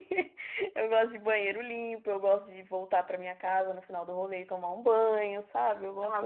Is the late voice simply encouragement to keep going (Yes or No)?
No